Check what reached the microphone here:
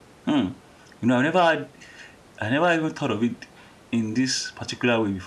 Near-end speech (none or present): present